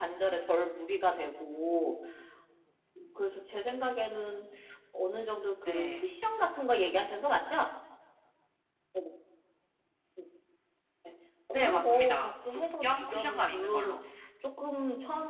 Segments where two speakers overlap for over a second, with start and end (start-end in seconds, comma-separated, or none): 11.5-14.0